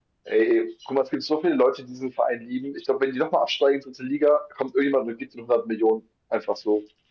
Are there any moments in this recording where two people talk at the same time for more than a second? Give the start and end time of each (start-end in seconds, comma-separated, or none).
none